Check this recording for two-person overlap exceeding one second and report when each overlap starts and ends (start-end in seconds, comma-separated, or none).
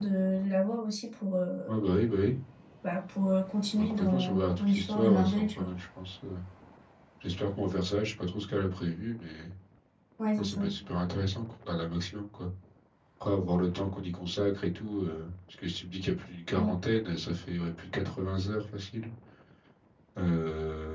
3.8-5.7